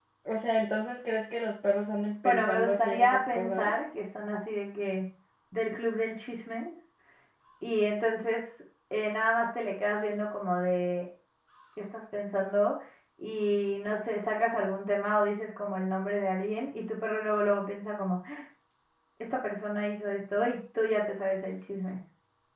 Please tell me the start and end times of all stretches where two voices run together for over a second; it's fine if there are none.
2.2-3.7

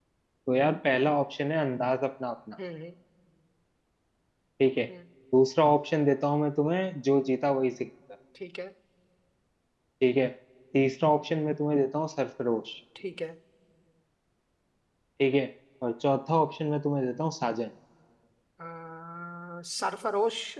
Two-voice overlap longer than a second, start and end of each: none

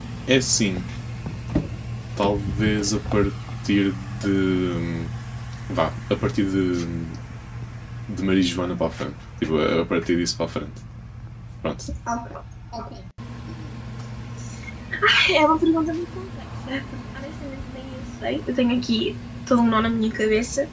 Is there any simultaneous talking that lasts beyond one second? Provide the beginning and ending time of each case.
none

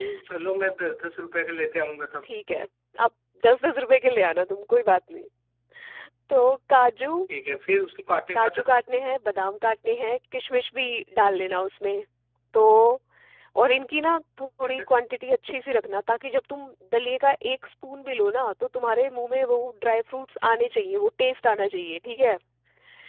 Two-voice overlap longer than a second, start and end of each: none

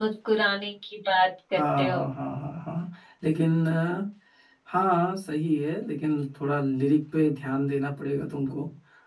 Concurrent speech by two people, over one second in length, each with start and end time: none

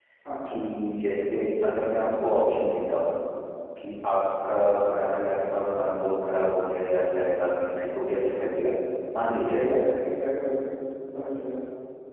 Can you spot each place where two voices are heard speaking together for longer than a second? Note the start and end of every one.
none

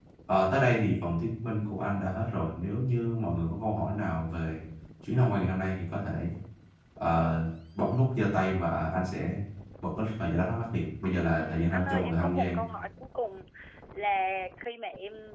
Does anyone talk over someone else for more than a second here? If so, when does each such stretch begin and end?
11.4-12.6

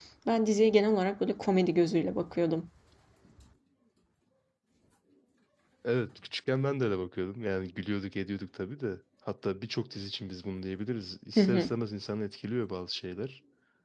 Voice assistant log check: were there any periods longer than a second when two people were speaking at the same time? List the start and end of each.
none

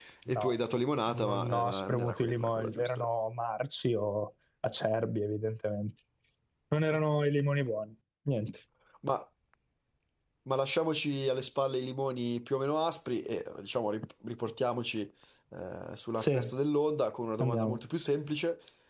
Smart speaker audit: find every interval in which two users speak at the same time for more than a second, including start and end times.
1.1-3.0

